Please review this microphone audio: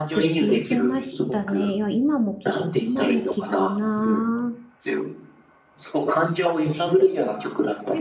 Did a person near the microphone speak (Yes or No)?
Yes